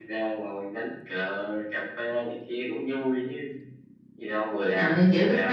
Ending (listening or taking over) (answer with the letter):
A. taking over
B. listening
A